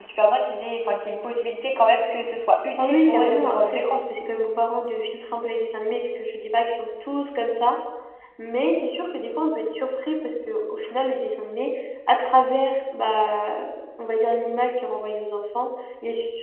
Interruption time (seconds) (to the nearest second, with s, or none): 3 s